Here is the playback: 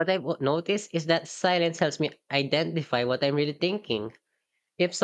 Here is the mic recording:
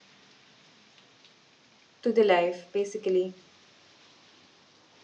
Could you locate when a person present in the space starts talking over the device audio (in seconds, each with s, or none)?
2.0 s